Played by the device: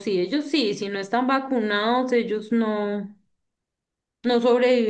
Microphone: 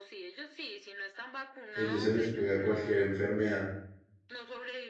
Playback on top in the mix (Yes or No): No